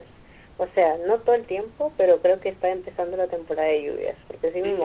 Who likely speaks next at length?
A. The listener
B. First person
A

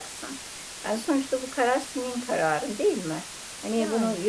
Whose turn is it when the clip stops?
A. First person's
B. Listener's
A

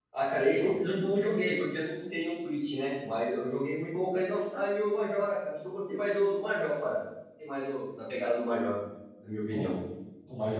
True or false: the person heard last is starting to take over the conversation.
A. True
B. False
A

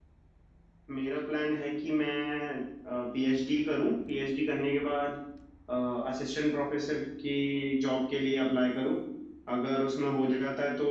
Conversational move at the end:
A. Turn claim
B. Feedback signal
B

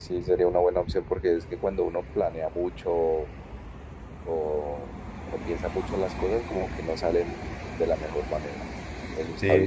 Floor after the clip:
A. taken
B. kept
A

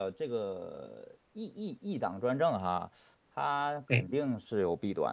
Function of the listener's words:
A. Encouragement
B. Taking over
A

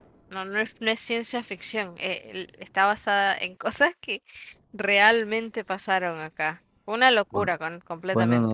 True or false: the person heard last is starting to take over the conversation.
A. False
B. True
B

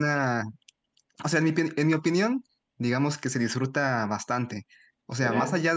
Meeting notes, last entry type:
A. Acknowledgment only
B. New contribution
A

